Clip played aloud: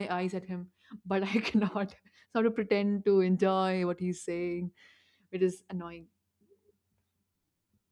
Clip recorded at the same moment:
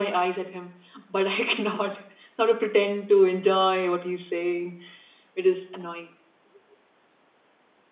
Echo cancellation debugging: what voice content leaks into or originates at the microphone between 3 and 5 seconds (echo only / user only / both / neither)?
echo only